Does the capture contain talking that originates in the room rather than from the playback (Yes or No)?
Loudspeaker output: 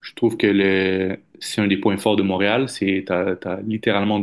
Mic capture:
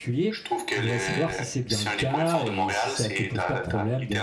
Yes